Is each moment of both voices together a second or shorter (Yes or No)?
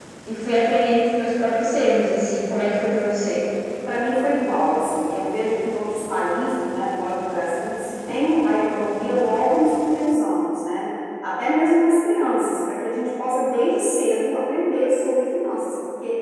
Yes